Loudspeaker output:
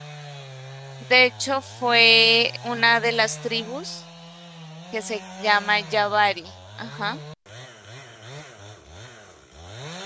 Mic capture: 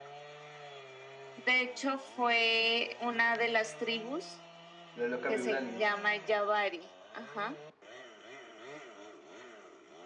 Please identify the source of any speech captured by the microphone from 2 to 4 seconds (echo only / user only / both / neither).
echo only